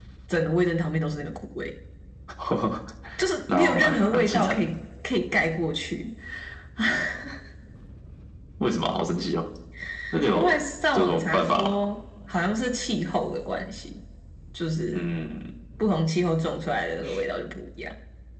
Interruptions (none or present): present